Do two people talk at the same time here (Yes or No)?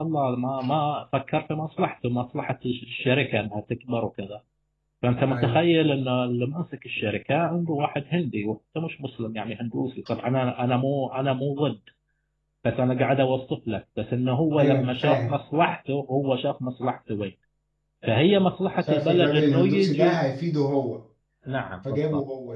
Yes